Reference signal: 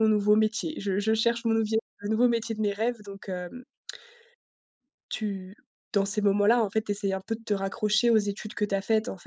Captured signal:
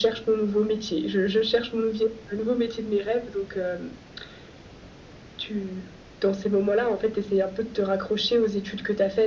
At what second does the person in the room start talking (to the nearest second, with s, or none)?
none